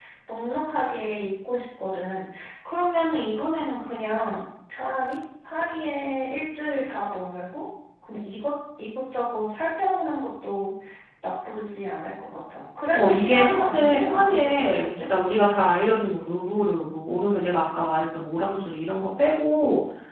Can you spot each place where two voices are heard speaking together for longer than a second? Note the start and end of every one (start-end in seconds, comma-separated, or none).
12.9-15.1